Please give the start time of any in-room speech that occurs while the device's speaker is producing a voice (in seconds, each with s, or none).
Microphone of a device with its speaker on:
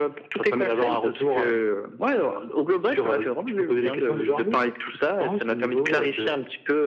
none